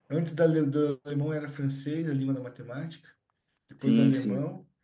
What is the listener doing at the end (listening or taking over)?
listening